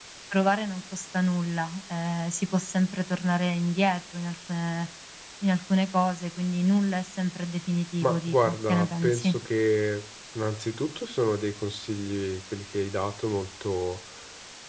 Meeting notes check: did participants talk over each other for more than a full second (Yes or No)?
Yes